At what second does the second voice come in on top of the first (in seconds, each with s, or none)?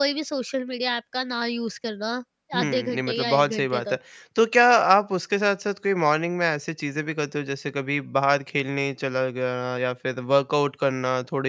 2.6 s